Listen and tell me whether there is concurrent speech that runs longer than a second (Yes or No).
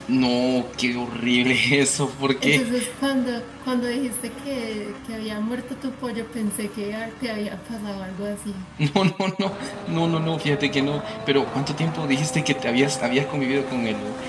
No